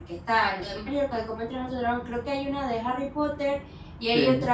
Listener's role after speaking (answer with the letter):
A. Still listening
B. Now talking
A